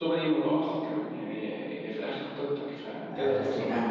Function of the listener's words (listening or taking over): taking over